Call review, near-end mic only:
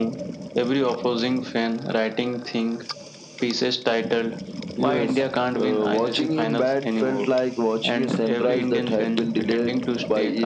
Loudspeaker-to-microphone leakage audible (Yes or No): Yes